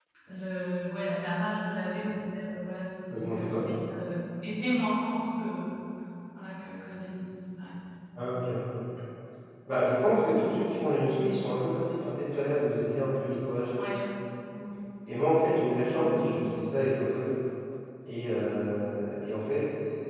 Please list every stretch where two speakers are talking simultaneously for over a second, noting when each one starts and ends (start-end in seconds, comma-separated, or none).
none